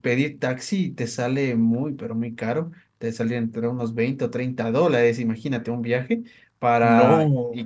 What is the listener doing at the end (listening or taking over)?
listening